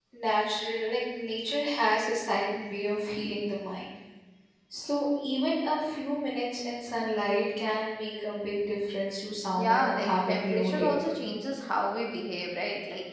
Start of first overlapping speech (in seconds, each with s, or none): 9.6 s